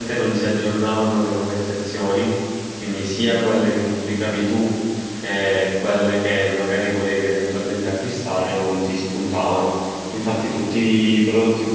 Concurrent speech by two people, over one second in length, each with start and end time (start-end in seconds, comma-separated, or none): none